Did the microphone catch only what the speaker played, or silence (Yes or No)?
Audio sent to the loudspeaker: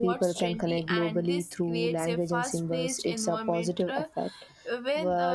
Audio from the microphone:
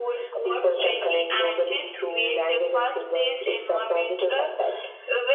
Yes